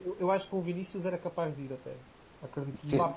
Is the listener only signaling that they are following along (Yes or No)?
Yes